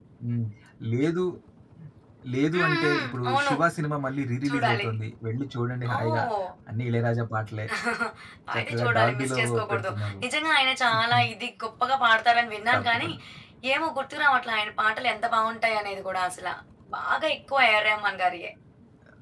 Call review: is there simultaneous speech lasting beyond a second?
Yes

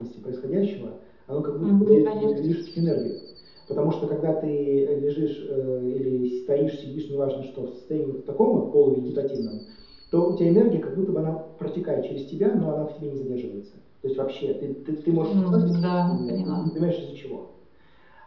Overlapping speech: Yes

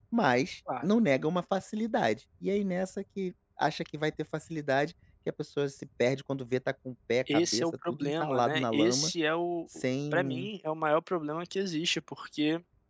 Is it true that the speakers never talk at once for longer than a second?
No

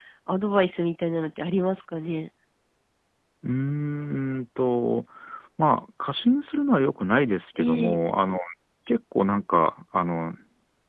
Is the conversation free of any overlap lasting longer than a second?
Yes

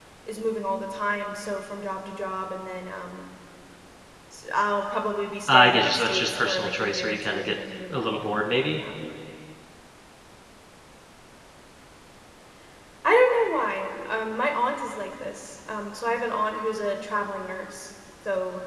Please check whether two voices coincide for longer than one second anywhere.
Yes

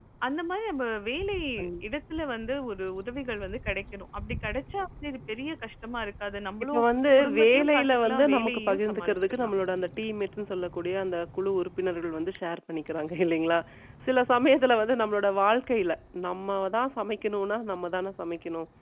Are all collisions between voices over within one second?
No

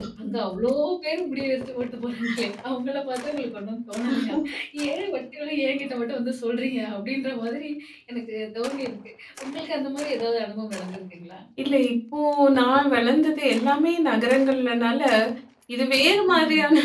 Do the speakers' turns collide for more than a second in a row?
No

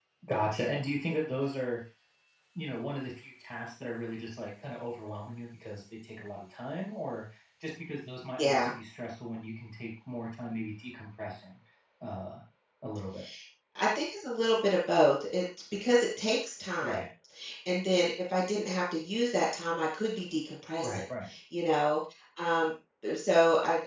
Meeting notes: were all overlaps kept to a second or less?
Yes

